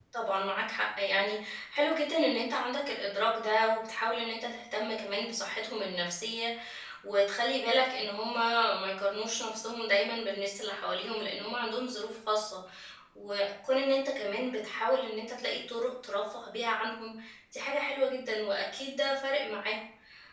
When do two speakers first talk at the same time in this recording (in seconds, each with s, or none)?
none